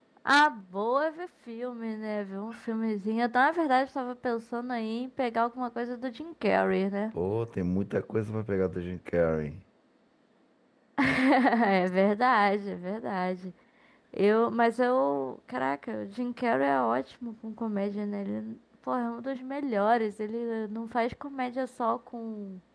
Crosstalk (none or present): none